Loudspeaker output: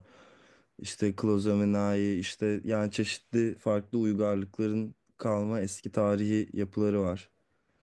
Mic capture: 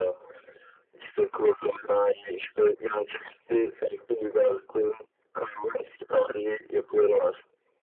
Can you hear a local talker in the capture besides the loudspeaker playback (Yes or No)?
No